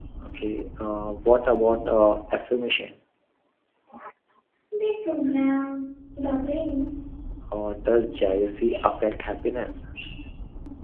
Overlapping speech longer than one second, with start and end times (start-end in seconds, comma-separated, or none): none